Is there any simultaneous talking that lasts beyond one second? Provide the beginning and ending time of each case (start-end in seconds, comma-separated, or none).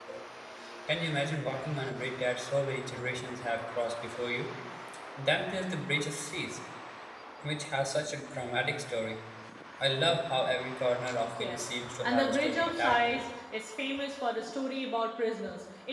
11.4-13.2